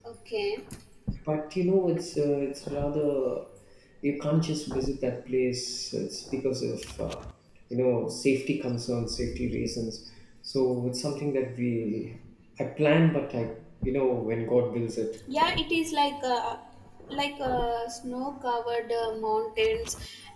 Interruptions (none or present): none